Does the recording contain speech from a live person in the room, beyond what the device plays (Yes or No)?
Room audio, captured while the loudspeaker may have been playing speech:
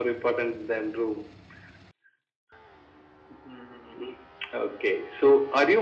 No